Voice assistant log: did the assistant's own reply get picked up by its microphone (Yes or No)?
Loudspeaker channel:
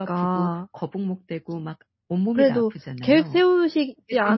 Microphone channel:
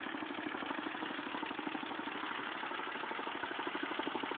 No